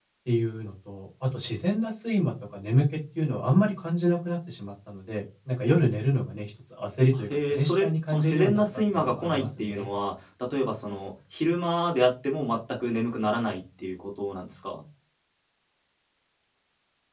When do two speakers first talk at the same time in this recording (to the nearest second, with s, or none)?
7 s